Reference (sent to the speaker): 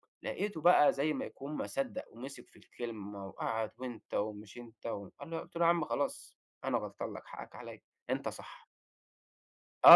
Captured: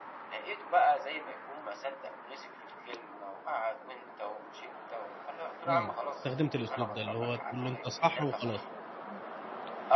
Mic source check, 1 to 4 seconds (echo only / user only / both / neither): echo only